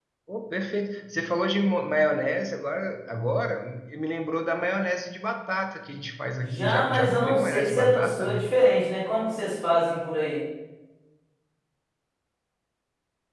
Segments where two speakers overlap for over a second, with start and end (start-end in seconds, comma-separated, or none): 6.6-8.4